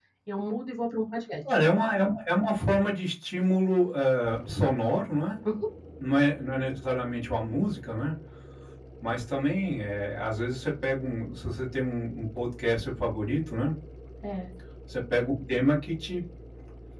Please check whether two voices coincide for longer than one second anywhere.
No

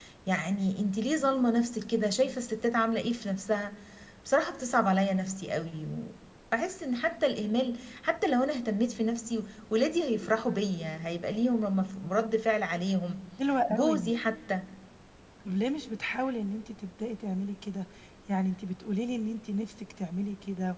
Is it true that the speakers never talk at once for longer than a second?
Yes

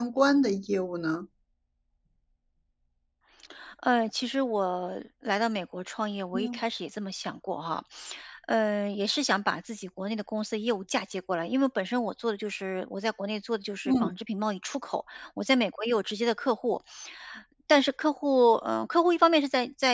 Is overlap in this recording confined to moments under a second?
Yes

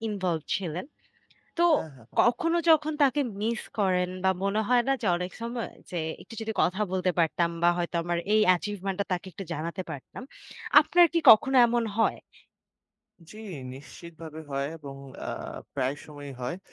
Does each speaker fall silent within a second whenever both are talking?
Yes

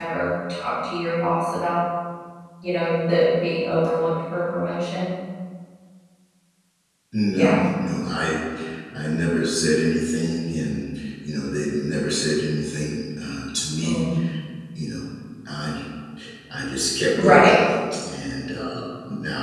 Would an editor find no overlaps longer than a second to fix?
Yes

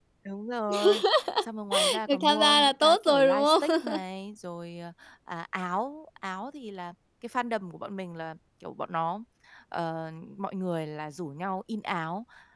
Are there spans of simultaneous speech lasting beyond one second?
Yes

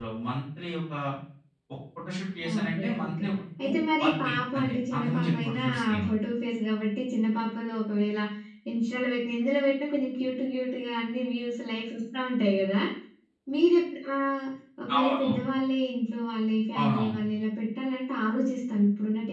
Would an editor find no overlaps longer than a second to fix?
No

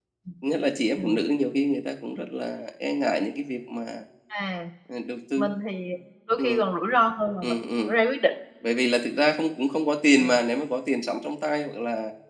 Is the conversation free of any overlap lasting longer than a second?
Yes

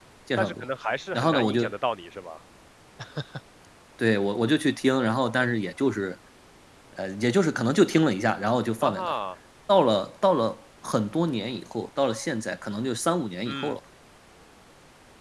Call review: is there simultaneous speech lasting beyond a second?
No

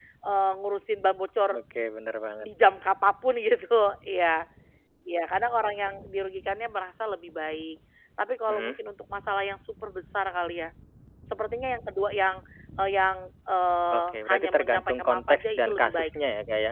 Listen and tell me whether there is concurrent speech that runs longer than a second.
Yes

